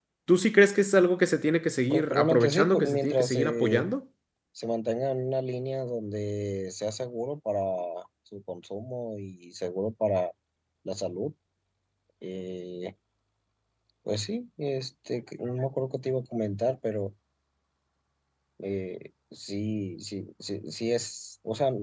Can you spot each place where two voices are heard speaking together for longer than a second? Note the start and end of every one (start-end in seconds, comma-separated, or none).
1.9-3.9